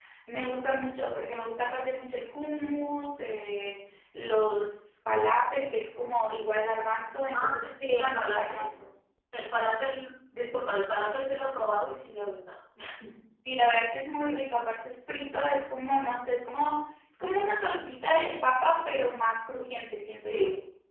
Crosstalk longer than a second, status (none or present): present